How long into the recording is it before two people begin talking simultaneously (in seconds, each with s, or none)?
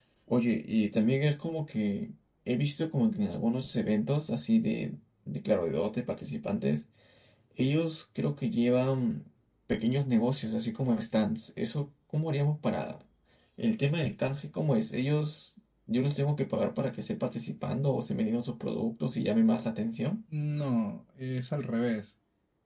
none